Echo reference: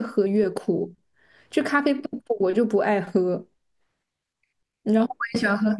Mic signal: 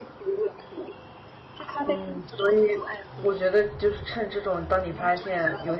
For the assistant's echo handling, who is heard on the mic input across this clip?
both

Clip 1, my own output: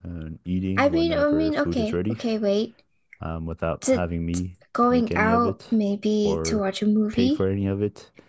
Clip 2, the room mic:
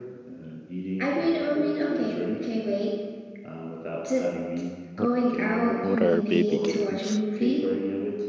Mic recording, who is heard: both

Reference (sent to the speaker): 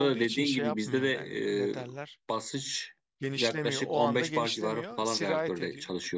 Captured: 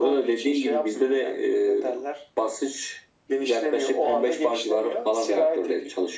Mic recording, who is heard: echo only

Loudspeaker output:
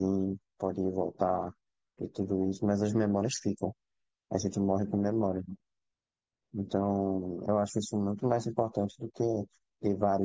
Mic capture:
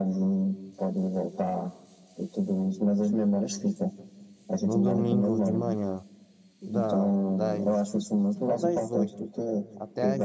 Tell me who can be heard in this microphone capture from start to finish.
both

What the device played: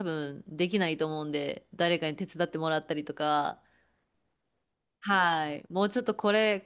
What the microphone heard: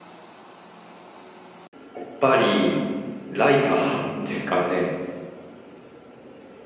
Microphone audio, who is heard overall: user only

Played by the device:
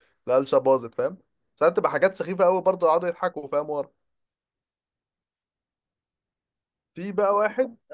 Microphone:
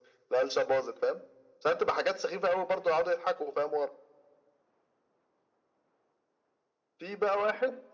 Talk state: echo only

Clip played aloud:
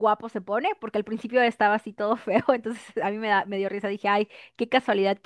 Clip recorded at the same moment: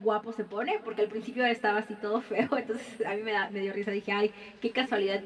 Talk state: echo only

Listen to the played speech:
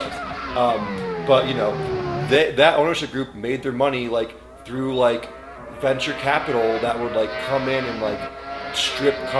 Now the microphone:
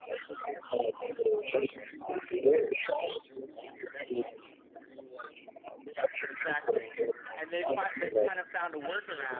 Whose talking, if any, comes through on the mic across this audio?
both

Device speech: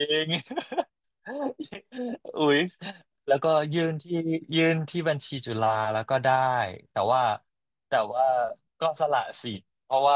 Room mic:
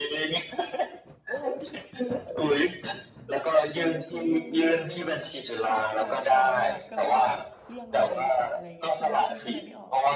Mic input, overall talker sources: both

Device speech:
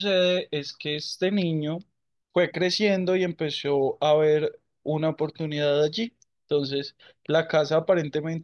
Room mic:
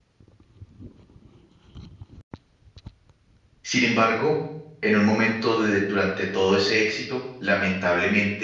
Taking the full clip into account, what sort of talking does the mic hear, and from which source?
user only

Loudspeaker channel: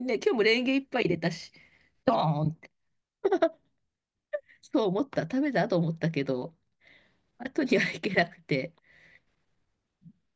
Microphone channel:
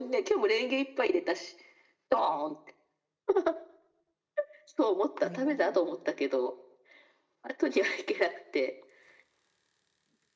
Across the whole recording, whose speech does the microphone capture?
both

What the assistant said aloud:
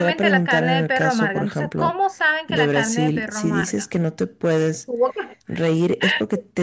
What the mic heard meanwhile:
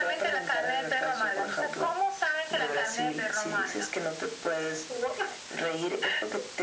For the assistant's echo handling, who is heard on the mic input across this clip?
echo only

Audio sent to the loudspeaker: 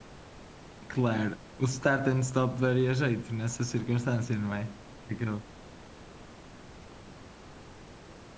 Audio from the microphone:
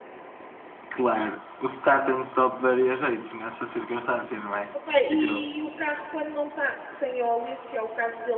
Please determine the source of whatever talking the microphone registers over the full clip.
both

